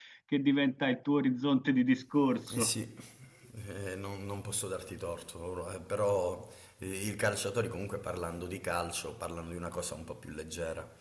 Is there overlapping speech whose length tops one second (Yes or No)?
No